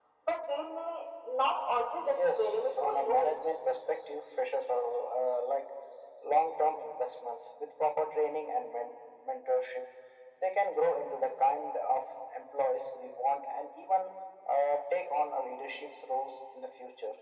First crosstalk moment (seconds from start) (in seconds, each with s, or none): 2.0 s